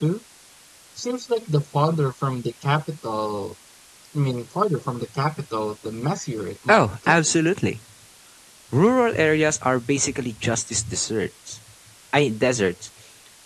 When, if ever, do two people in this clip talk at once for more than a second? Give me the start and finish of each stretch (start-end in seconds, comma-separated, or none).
none